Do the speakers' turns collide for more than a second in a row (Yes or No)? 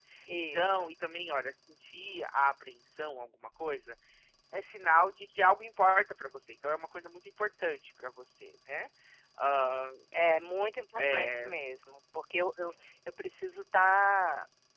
No